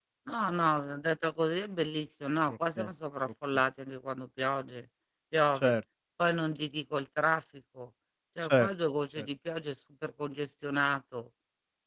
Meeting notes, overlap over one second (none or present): none